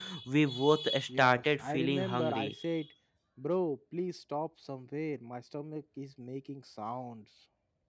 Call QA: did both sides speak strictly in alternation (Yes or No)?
No